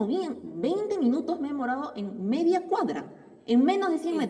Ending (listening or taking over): listening